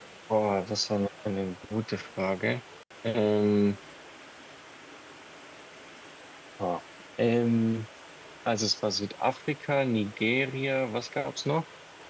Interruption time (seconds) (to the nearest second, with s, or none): none